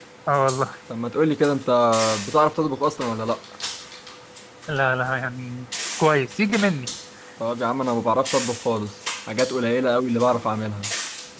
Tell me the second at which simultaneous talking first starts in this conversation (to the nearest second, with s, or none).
none